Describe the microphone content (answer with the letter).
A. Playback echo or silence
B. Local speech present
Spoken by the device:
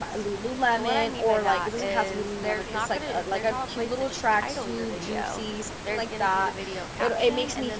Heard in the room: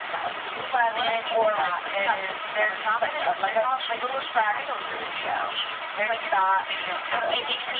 A